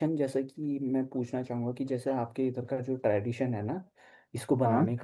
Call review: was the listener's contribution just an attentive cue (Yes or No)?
Yes